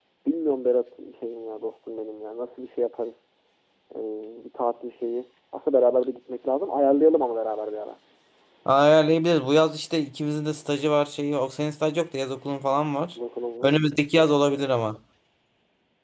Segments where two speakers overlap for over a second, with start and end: none

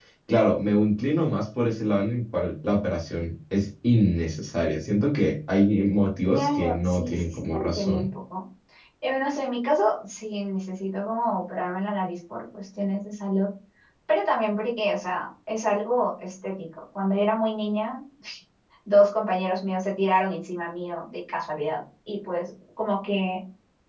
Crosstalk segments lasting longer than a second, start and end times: 6.2-8.1

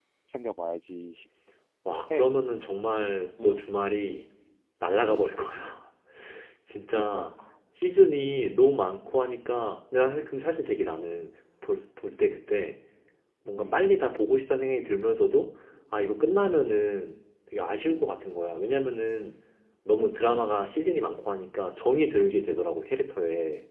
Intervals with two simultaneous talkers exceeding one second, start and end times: none

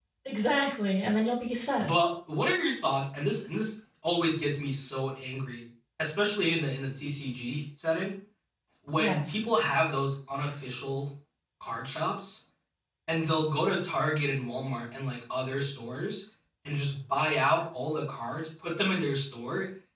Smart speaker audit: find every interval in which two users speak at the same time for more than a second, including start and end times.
none

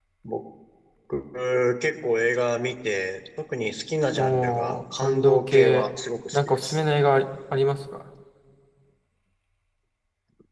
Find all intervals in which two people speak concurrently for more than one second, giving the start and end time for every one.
4.2-5.8

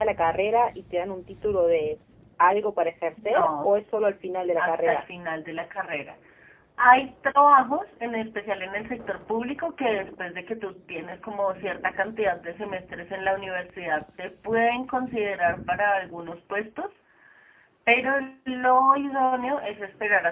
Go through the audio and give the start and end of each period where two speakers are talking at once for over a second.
none

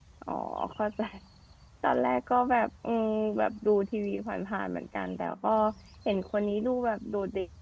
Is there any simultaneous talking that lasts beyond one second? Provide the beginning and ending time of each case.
none

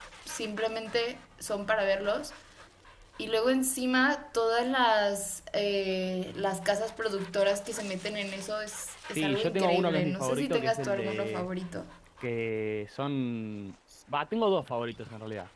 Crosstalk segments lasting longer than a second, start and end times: 9.2-11.5

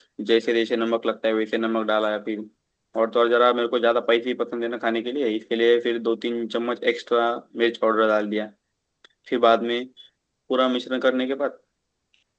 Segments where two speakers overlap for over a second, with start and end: none

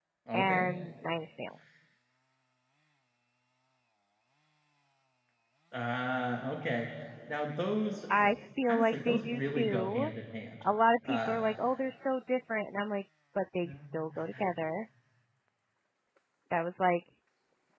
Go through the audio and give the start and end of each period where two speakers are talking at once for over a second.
8.7-10.1

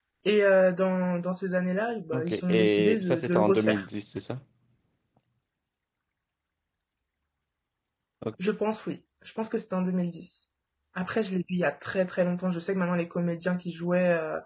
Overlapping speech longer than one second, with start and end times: 2.1-3.8

